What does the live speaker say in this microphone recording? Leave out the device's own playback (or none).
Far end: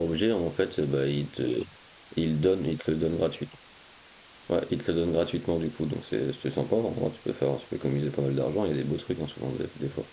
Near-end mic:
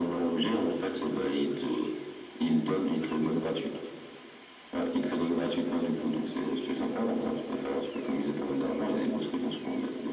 none